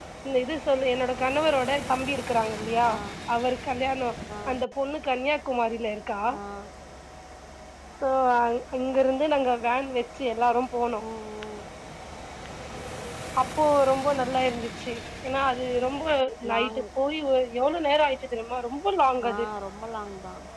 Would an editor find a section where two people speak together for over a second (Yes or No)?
No